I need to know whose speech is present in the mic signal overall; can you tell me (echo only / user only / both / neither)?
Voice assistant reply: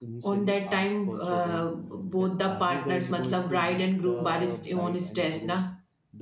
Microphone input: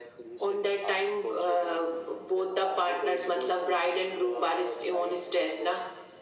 echo only